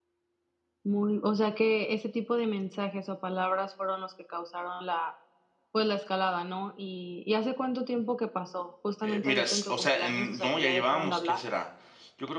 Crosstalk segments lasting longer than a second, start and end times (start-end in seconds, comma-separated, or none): 9.0-11.4